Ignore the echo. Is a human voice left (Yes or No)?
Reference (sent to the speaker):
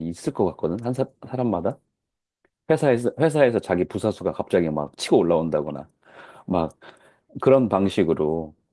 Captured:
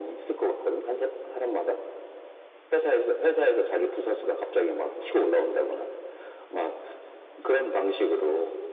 No